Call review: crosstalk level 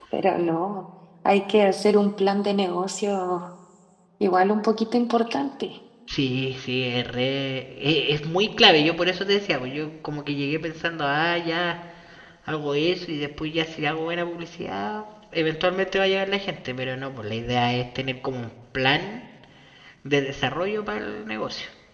none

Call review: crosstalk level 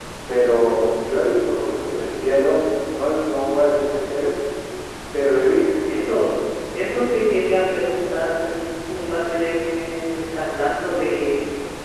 none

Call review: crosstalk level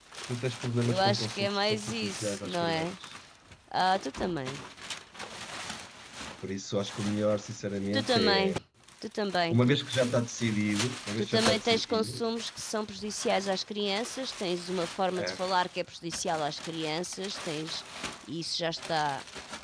present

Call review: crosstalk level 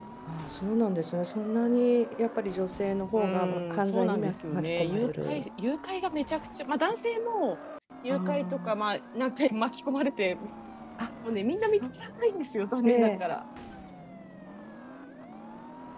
present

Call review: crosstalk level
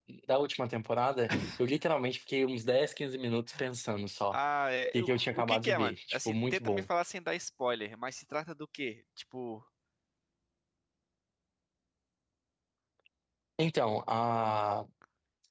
present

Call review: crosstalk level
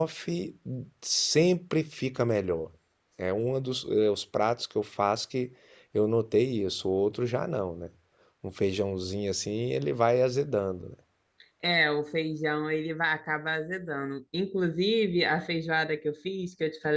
none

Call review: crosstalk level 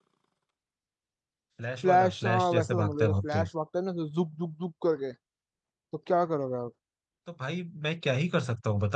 present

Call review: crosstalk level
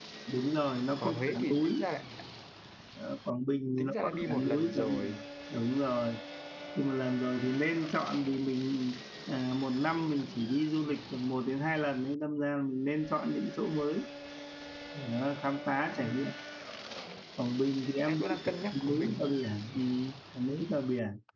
present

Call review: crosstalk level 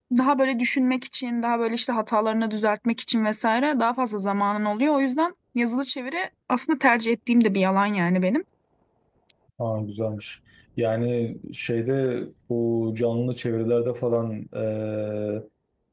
none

